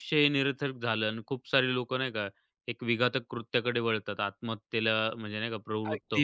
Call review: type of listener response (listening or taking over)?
taking over